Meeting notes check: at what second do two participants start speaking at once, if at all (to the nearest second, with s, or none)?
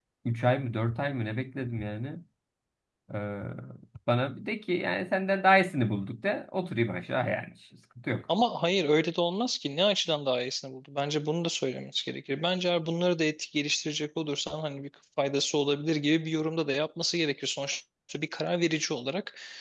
none